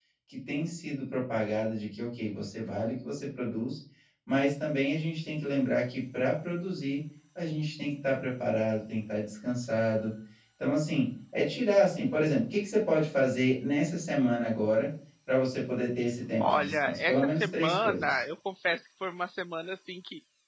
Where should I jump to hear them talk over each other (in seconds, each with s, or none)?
16.4 s